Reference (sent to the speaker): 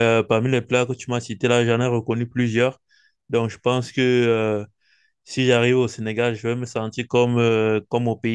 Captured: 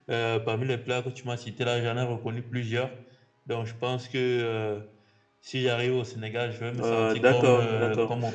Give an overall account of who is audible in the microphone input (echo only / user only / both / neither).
both